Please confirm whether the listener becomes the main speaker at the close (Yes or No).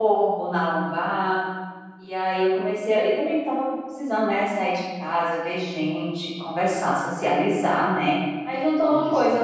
No